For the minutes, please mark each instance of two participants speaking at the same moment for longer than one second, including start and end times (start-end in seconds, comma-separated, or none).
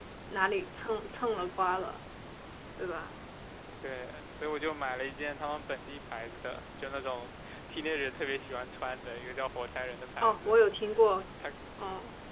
none